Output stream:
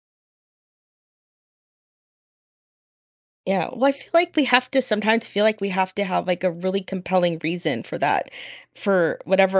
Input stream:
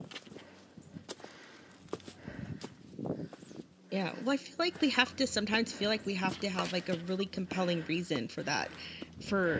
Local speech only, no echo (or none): none